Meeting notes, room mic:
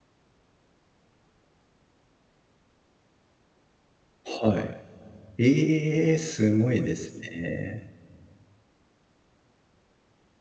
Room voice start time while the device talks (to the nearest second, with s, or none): 4 s